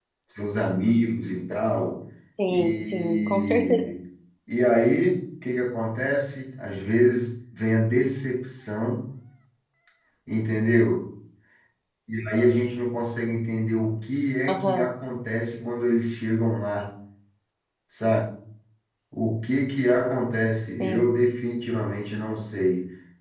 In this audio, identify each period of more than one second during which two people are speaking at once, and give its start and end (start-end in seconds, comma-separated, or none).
2.5-3.9